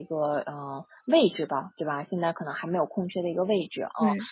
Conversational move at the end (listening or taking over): listening